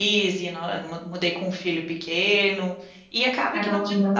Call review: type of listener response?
listening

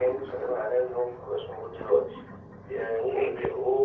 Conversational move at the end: listening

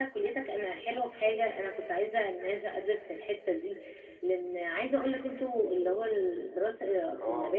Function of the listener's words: listening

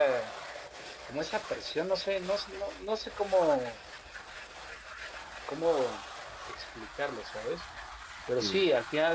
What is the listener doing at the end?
listening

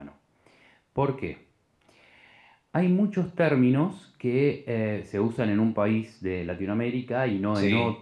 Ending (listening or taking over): listening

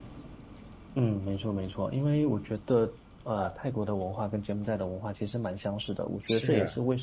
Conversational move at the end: listening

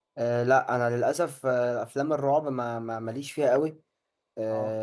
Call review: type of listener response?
listening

